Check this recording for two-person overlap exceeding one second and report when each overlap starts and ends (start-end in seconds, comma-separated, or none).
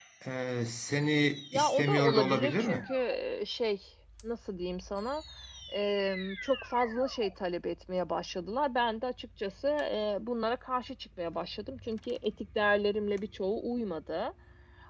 1.5-2.8